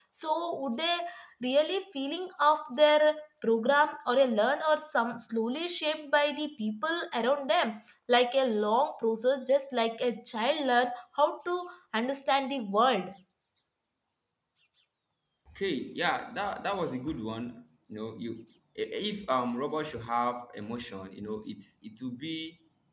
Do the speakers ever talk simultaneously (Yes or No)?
No